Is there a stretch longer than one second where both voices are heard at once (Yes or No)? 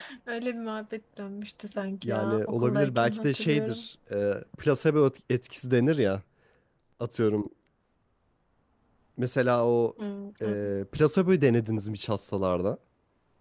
Yes